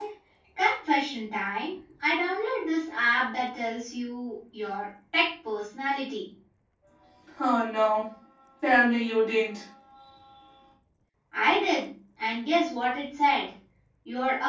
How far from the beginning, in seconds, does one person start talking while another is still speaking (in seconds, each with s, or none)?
none